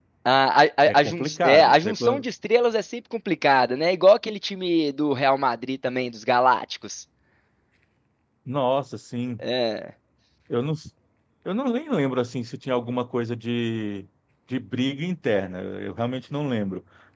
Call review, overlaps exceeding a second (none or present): present